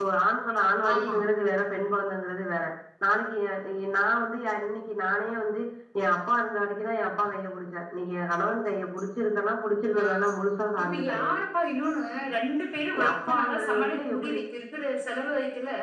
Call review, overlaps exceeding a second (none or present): present